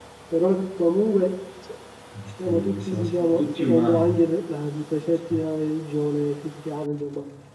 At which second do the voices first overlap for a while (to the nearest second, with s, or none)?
2 s